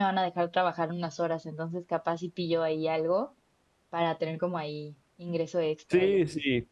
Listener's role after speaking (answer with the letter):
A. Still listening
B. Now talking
B